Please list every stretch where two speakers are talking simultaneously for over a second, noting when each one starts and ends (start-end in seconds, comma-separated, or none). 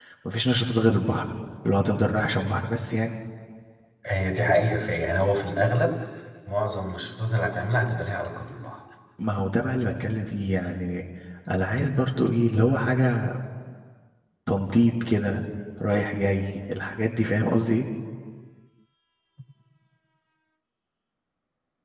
none